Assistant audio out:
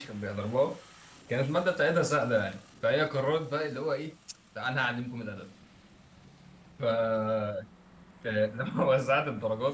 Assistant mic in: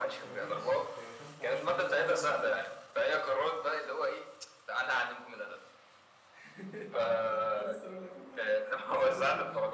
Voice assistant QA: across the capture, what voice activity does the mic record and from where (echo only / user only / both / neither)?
both